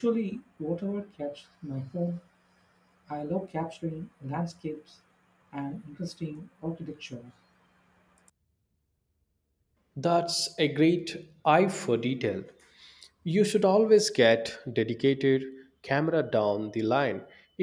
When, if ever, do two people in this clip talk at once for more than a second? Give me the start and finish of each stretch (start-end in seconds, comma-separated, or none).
none